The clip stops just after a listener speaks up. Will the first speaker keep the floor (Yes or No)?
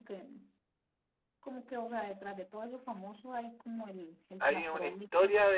No